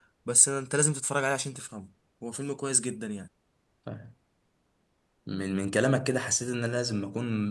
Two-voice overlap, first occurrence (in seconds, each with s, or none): none